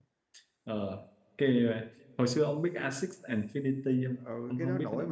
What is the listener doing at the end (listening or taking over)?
taking over